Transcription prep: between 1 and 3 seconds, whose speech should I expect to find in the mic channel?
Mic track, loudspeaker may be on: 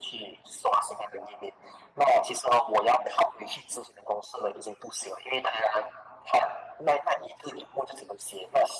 echo only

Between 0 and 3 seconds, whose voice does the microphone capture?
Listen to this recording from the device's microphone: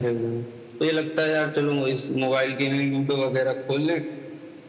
echo only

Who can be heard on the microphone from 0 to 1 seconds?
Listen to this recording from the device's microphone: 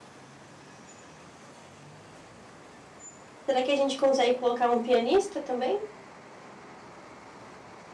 neither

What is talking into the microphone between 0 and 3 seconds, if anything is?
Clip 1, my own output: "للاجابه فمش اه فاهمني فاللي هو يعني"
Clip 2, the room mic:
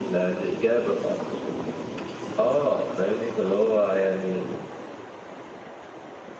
echo only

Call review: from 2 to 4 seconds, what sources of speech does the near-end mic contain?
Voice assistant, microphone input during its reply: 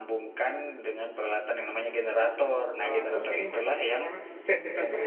both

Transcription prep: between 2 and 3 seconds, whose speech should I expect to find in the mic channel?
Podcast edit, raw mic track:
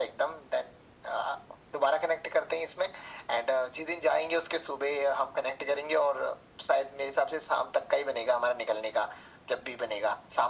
echo only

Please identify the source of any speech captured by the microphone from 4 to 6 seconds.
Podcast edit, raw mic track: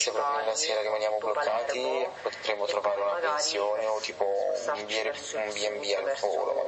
echo only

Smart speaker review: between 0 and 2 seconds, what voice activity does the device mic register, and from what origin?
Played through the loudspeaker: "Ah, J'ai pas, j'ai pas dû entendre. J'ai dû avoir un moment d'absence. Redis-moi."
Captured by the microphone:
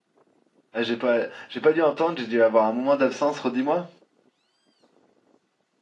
echo only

